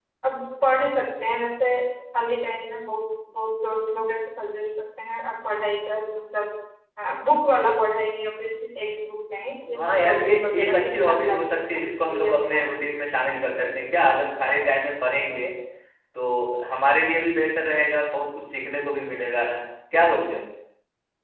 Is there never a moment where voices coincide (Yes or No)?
No